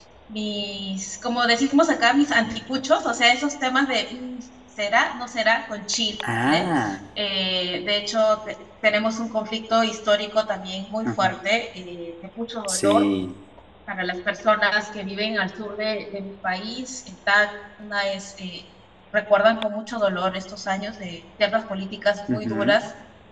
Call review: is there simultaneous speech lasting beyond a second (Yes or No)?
No